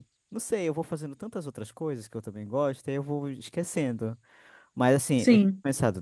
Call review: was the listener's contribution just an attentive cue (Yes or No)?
Yes